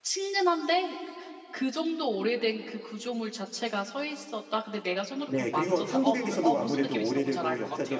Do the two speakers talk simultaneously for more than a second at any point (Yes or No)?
Yes